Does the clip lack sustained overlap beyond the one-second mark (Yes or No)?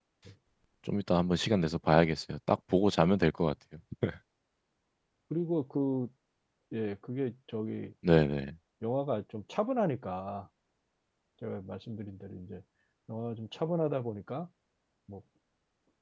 Yes